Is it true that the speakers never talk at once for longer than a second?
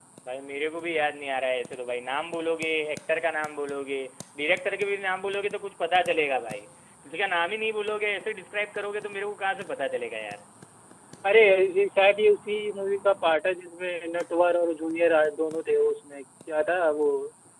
Yes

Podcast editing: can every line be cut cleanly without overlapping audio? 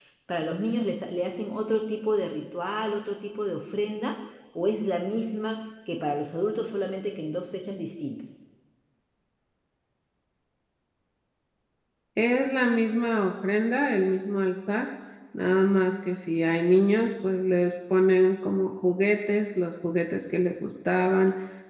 Yes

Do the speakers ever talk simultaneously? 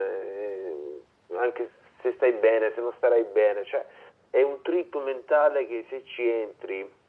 No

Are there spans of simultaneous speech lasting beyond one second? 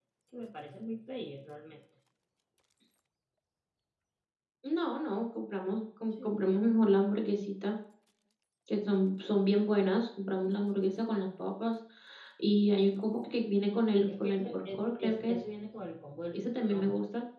Yes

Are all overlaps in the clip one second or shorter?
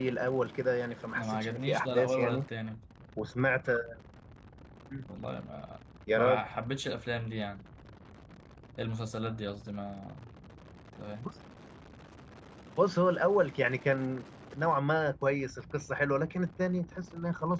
No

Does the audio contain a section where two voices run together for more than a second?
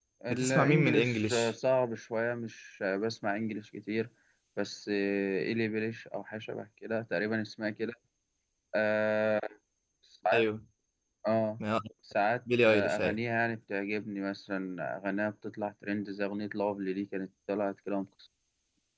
Yes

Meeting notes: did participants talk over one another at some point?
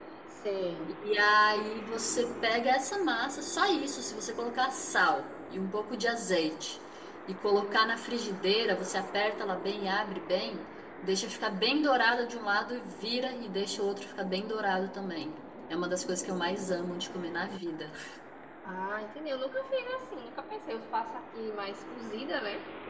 No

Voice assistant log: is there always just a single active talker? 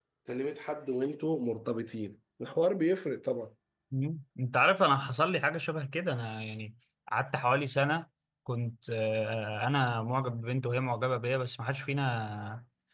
Yes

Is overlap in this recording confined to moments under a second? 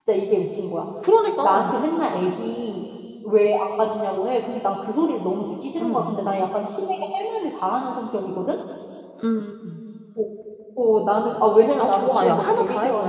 No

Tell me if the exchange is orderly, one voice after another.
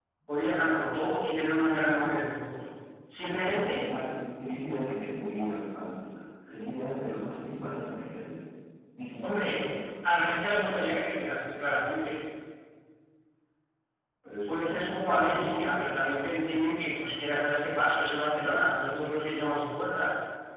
No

